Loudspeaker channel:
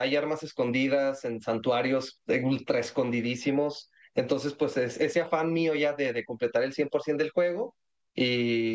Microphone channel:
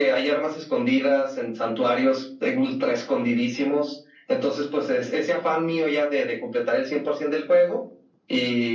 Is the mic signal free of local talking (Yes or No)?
Yes